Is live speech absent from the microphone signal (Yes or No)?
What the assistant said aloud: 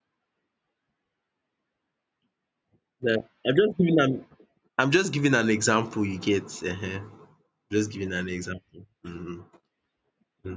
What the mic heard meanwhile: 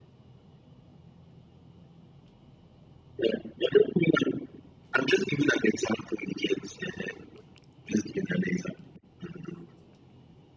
Yes